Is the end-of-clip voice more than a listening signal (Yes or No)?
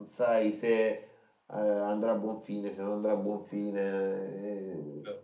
No